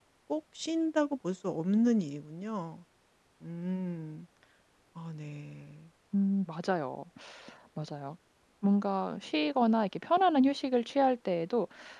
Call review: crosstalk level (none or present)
none